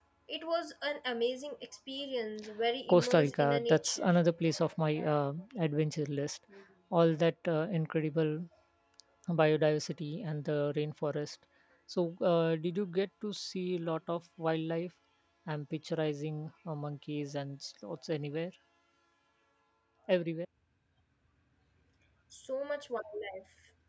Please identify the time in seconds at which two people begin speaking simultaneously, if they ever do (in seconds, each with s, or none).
2.9 s